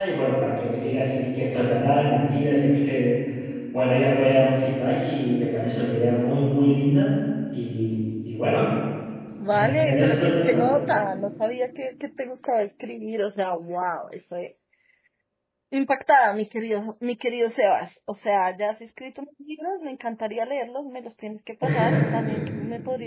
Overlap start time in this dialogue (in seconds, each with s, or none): 9.5 s